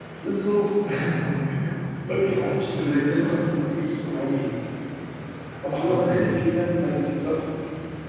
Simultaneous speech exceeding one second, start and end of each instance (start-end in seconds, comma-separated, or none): 2.1-3.4